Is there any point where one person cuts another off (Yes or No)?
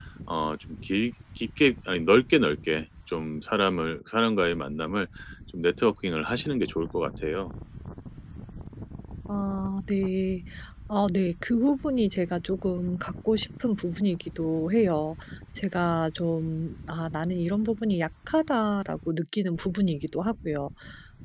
No